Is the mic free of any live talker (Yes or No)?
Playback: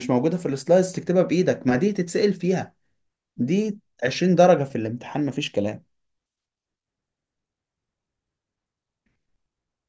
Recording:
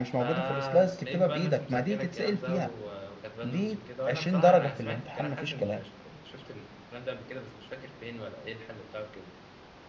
No